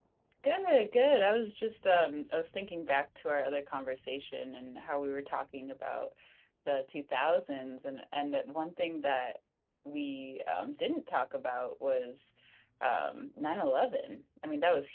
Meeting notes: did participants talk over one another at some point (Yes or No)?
No